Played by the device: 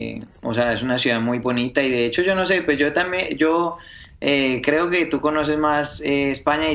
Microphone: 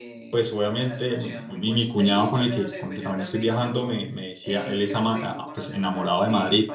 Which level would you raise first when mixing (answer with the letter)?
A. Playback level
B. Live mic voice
A